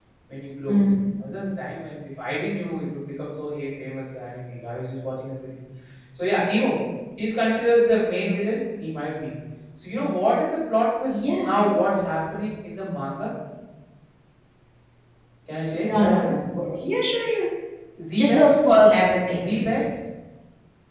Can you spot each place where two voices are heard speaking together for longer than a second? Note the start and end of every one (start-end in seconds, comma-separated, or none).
none